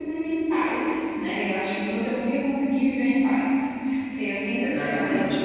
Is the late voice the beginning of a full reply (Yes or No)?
No